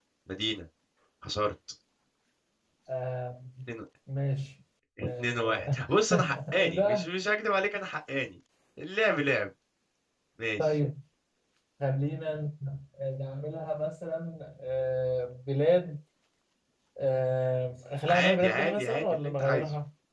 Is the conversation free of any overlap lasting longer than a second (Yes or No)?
No